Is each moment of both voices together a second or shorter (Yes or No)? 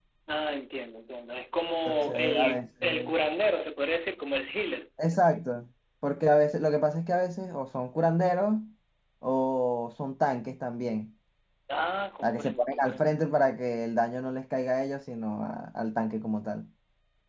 No